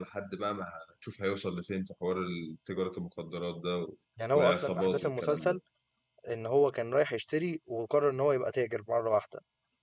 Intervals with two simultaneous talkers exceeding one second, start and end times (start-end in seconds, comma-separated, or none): 4.3-5.6